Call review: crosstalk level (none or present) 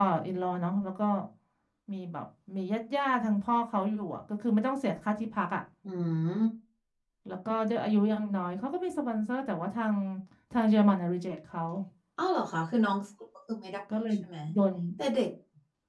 none